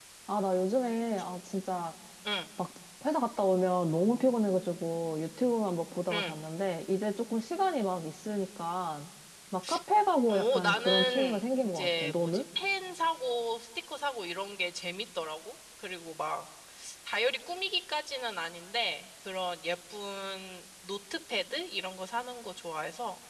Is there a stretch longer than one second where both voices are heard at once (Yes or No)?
Yes